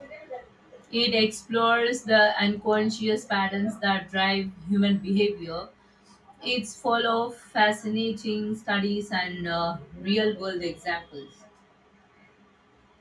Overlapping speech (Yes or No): No